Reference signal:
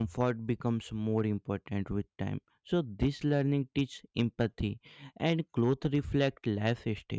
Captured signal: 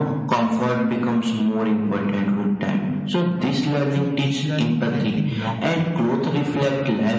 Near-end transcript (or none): So this learning help in long trips.